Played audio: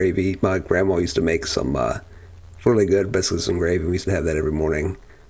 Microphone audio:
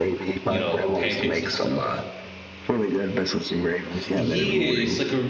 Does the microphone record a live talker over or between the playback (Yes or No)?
Yes